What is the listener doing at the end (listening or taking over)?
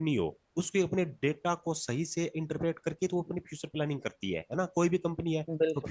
listening